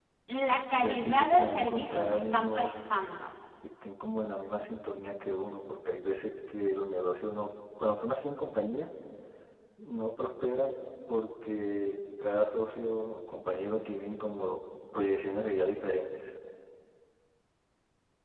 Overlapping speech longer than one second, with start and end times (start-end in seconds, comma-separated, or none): 0.8-2.7